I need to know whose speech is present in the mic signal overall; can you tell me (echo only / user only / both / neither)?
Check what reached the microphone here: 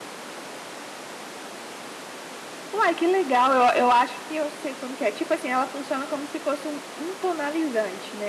user only